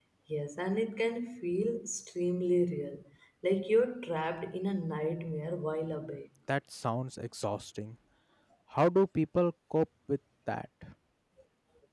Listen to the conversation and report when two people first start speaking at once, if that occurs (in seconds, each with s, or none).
none